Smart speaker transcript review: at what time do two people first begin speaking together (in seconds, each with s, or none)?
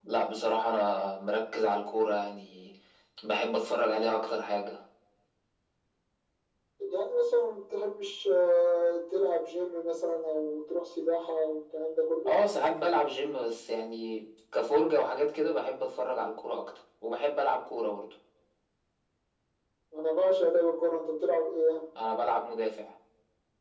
none